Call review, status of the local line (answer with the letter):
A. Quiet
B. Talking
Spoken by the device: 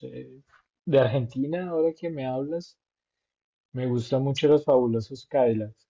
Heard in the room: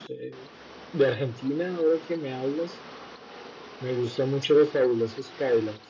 A